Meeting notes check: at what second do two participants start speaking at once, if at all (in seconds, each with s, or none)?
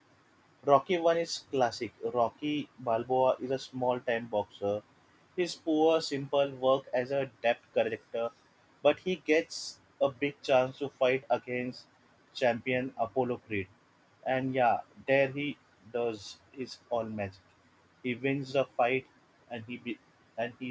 none